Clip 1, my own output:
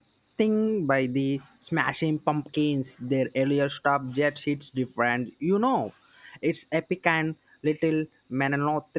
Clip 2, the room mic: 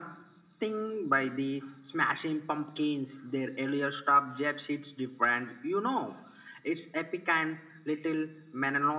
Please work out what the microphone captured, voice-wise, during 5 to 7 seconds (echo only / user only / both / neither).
echo only